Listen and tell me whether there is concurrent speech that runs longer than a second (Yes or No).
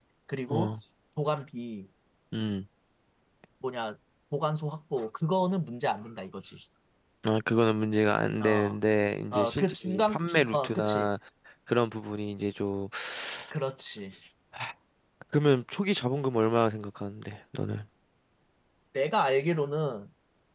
Yes